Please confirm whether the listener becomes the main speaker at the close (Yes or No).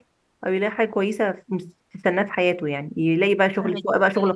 No